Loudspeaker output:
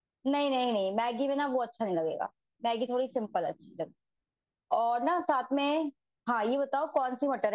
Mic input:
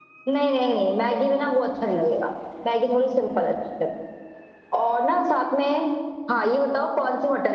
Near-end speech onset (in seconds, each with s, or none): none